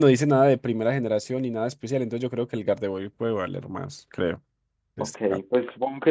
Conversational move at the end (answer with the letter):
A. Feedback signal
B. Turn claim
B